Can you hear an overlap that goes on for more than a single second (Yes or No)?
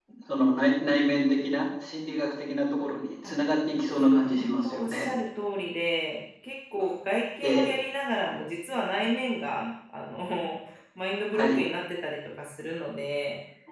Yes